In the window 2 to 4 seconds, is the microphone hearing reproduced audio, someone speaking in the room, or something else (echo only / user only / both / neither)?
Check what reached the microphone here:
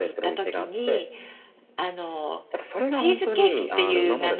both